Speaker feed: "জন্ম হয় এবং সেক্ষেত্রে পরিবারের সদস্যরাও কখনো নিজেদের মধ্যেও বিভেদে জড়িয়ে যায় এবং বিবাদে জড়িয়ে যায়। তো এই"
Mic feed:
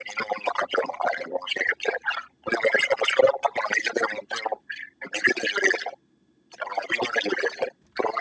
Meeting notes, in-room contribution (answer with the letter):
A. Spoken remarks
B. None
B